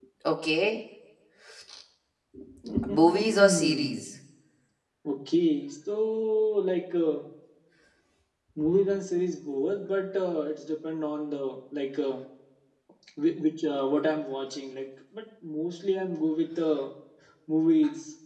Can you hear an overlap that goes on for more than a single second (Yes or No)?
Yes